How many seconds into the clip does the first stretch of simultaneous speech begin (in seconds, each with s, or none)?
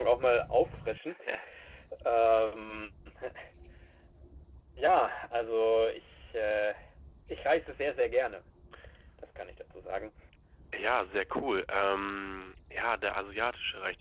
none